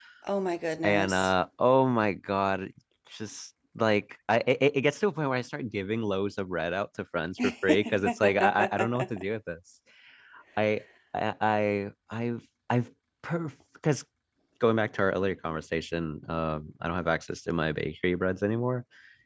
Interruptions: present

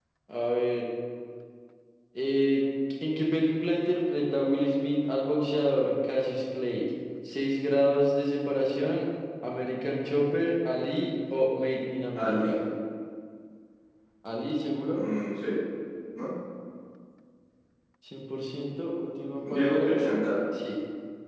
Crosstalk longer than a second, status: none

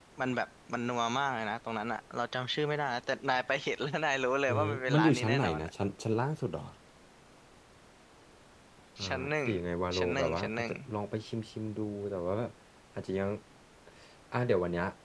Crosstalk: present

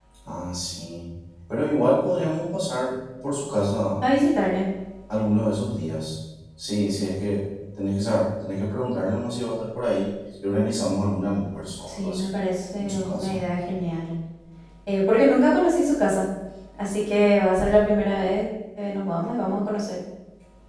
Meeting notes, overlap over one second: none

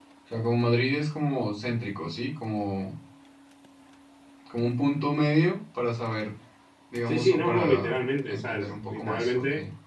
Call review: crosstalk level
present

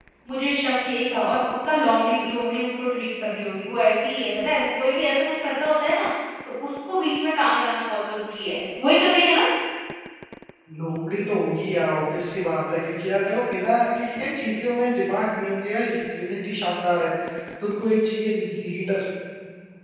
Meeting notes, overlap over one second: none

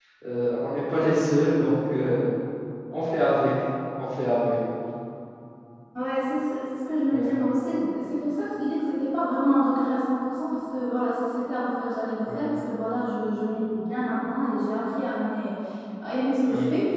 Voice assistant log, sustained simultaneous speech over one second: none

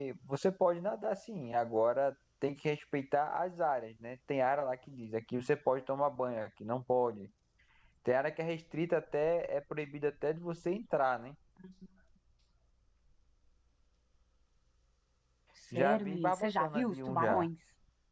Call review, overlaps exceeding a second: present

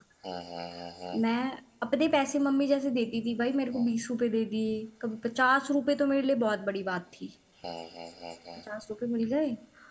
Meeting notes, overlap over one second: none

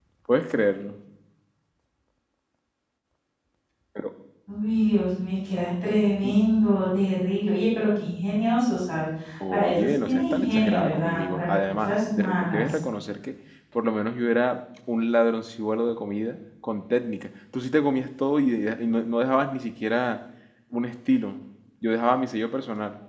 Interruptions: present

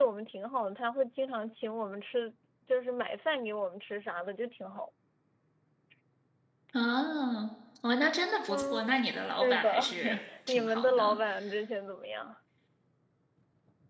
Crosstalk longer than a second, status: present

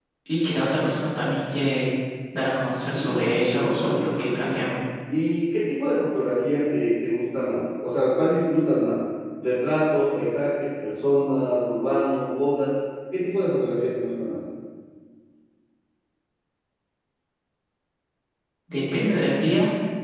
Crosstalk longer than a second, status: present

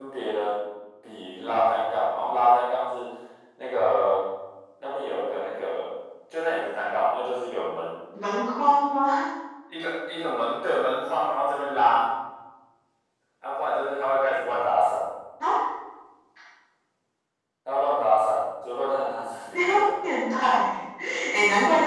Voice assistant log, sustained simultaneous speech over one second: none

